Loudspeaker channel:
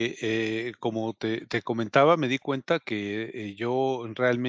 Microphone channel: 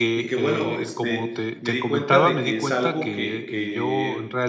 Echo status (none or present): present